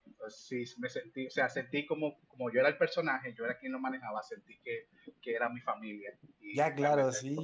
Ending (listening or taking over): taking over